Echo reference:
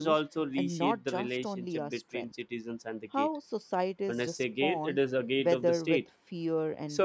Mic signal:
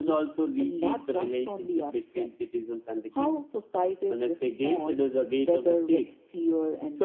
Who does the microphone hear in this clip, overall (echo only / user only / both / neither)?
echo only